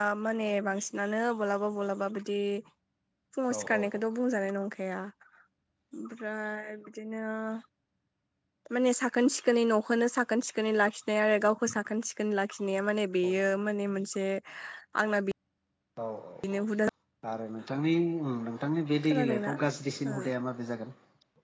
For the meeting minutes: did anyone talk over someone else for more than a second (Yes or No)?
No